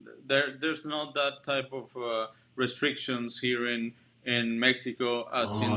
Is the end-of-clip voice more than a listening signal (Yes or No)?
Yes